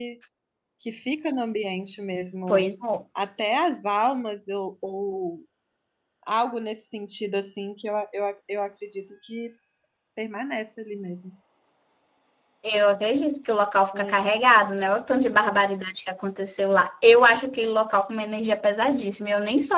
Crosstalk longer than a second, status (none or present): none